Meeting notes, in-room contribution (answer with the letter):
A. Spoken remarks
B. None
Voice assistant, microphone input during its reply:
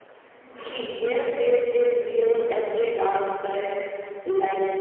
B